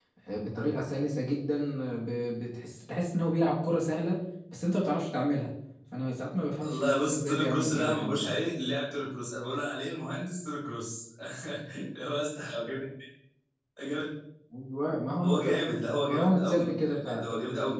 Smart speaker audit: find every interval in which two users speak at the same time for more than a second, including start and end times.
6.6-8.2, 16.0-17.3

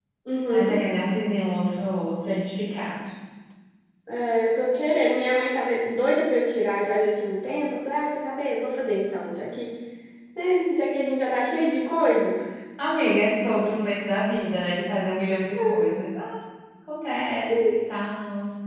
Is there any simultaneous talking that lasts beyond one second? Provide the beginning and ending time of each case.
none

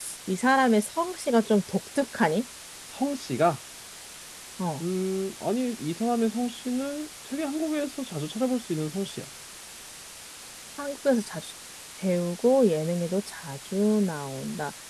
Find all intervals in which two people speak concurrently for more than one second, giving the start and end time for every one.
none

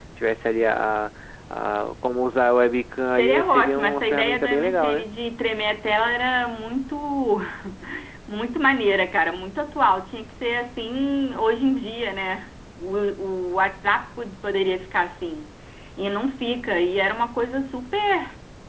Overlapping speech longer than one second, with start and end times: 3.1-5.0

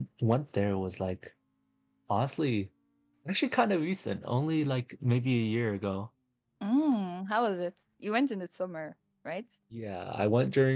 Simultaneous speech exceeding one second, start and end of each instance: none

